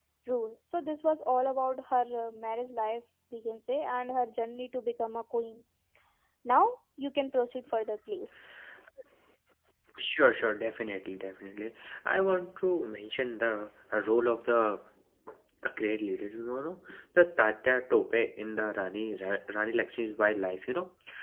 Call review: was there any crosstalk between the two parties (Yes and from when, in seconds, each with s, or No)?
No